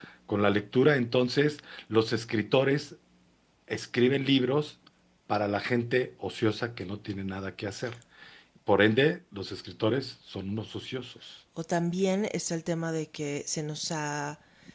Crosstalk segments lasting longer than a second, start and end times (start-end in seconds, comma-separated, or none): none